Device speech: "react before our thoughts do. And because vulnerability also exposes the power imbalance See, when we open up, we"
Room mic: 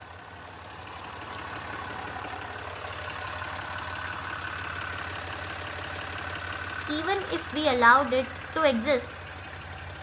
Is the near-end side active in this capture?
Yes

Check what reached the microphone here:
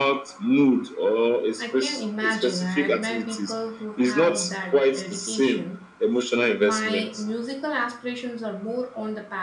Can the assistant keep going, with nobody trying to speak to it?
No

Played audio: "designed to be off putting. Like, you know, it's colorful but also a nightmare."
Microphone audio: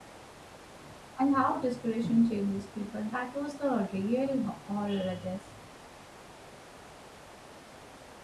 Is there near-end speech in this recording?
Yes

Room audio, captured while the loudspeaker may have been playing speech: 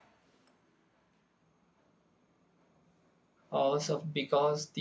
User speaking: Yes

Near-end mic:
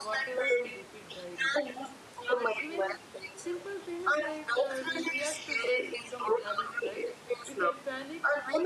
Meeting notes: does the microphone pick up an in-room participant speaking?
Yes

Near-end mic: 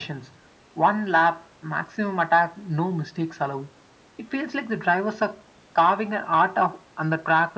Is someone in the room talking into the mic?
No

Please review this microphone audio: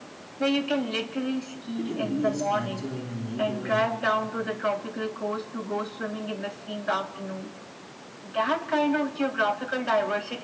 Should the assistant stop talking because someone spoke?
Yes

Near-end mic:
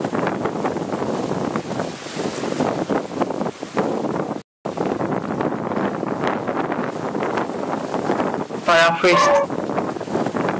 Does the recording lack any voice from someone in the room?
No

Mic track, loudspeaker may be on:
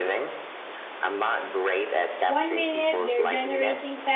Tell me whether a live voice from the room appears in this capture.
Yes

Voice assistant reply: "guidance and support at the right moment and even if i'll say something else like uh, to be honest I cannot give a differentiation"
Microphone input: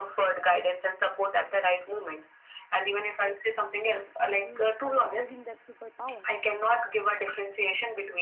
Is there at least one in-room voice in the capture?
Yes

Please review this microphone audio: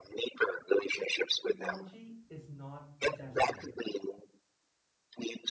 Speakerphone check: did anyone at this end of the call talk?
Yes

